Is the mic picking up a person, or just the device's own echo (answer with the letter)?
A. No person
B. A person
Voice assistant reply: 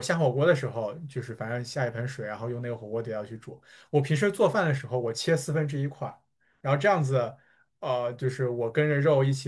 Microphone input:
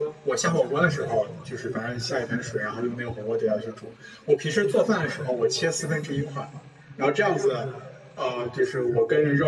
A